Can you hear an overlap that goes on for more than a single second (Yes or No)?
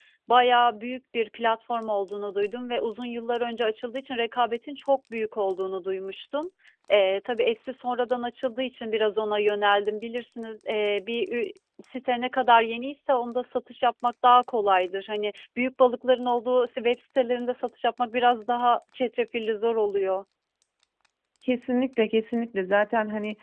No